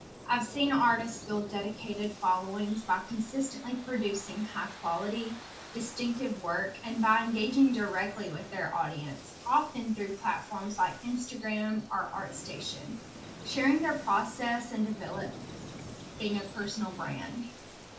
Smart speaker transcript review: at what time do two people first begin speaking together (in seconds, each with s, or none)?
none